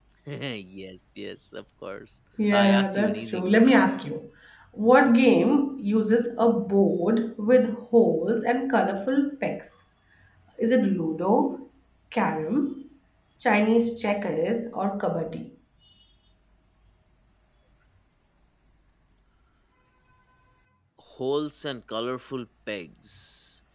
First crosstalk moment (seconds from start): 2 s

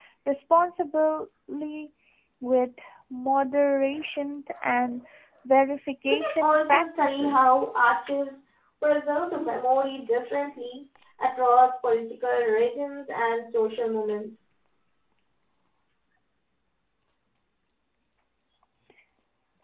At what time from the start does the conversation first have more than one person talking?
6 s

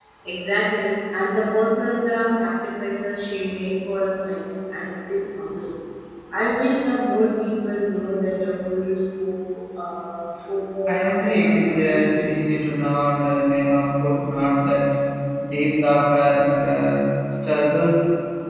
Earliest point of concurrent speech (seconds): 11 s

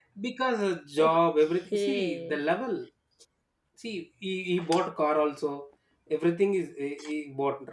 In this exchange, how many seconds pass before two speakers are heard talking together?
1 s

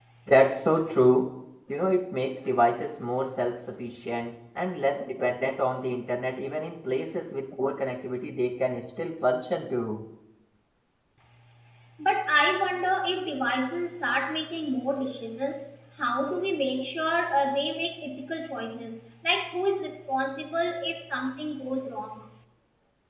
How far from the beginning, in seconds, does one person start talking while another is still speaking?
none

